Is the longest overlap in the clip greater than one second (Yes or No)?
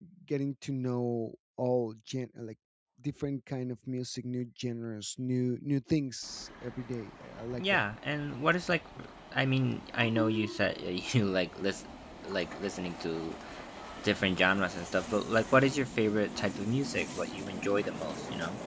No